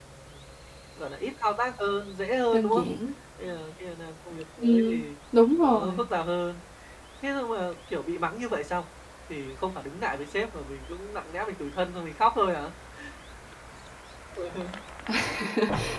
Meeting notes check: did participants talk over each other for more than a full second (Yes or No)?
No